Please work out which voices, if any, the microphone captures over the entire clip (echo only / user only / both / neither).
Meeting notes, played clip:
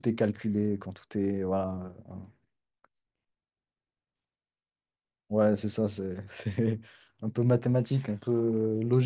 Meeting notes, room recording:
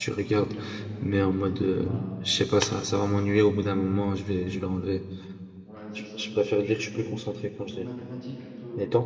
both